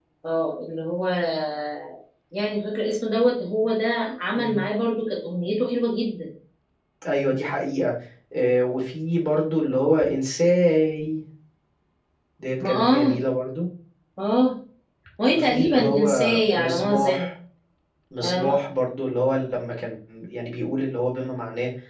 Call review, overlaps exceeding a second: present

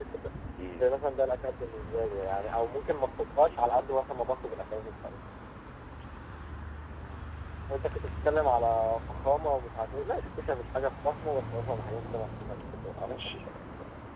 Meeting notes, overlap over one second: none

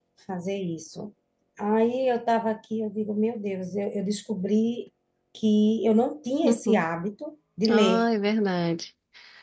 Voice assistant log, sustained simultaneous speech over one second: none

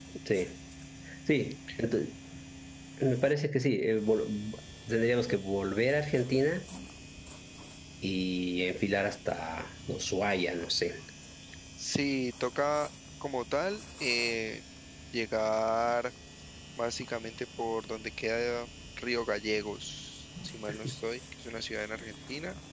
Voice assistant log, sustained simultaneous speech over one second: none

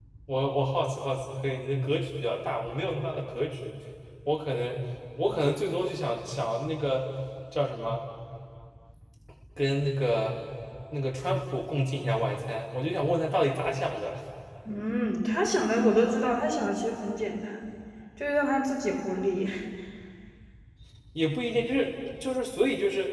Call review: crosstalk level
none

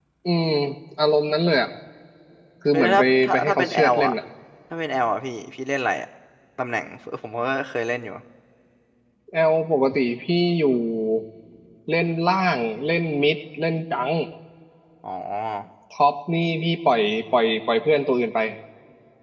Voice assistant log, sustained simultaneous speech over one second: present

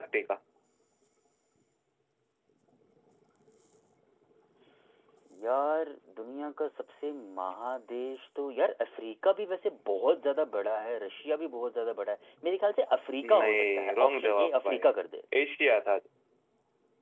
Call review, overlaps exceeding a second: present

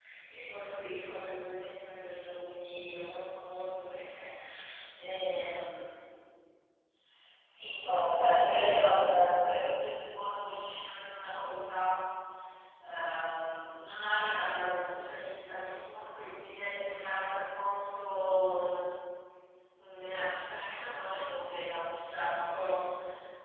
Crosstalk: present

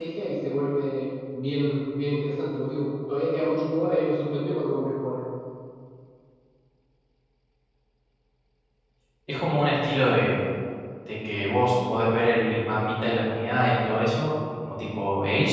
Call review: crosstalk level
none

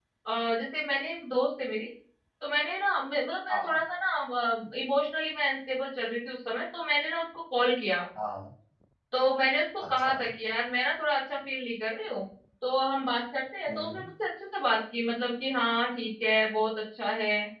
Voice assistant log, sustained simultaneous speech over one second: none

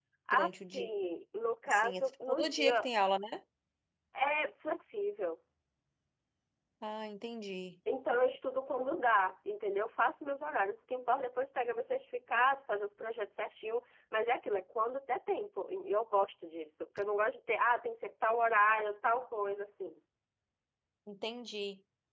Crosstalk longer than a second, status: present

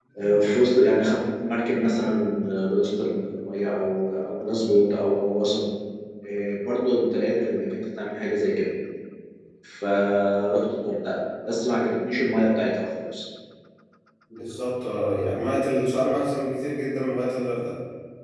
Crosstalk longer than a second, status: none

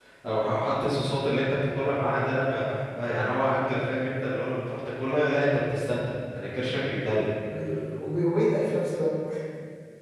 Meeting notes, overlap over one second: none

